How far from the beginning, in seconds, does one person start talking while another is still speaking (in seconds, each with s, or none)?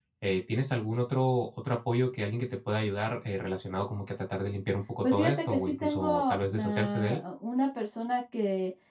5.0 s